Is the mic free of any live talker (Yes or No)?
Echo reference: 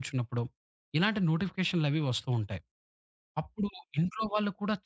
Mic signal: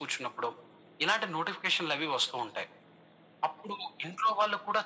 Yes